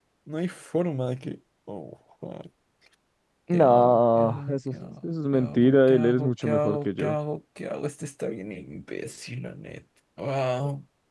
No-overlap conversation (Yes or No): No